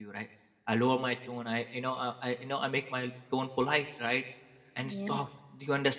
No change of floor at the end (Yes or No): Yes